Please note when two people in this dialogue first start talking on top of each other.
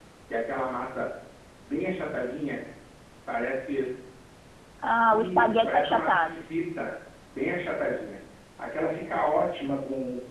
5.1 s

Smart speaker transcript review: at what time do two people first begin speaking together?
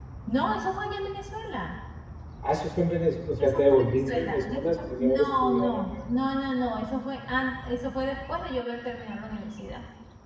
3.4 s

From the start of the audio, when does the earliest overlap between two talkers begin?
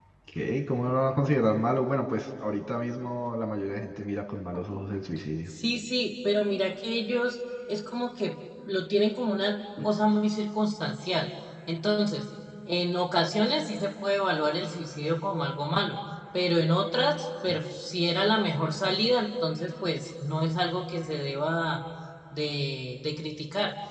none

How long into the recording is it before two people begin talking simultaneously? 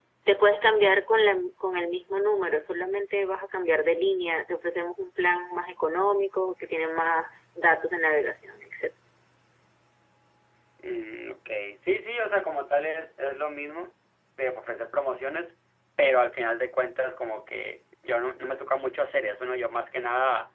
none

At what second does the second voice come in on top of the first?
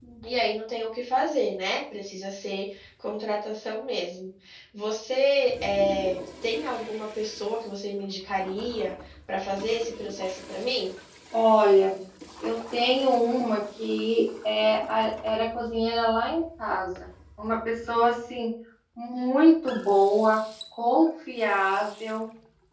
none

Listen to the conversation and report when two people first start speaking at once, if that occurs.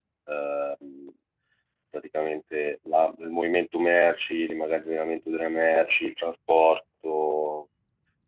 none

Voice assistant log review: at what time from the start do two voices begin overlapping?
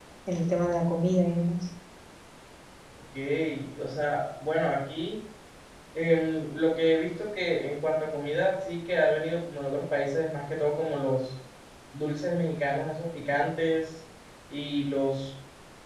none

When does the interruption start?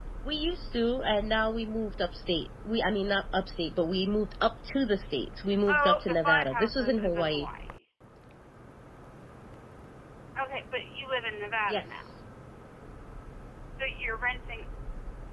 5.7 s

